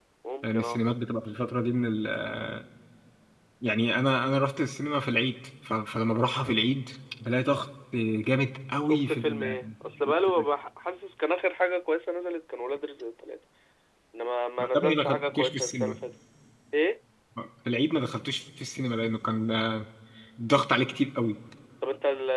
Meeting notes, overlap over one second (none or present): present